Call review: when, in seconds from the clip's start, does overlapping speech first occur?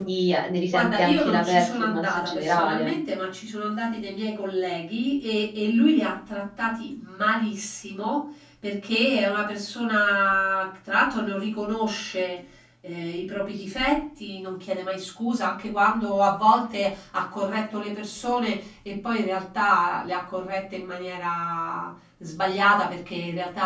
1 s

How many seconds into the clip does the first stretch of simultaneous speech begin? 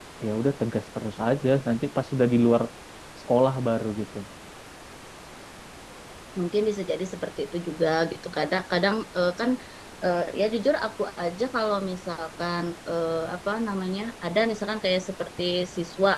none

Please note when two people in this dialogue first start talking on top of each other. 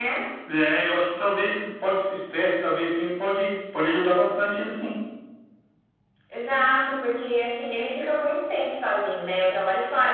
none

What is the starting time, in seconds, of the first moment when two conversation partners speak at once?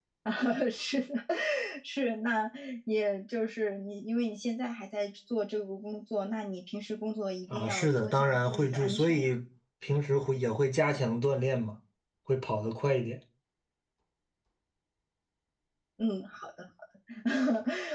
8 s

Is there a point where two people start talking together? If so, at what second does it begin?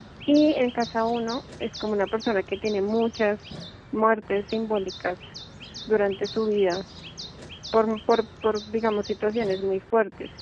none

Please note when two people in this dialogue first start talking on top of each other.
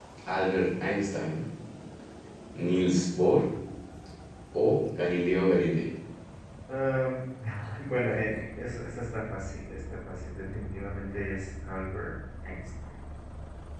none

